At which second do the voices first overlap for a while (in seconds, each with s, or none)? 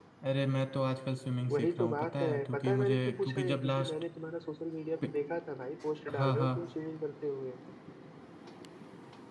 1.5 s